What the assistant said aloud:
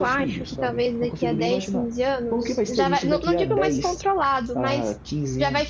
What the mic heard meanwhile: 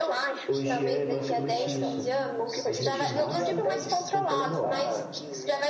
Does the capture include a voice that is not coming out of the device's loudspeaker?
Yes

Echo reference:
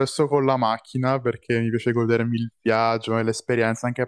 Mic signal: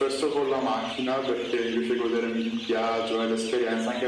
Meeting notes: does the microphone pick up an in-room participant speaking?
No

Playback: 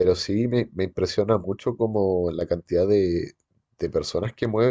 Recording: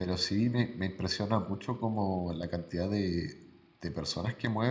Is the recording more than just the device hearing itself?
No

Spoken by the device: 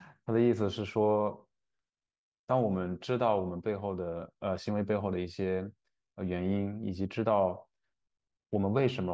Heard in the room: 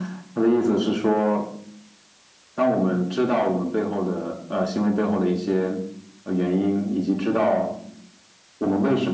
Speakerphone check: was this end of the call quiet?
Yes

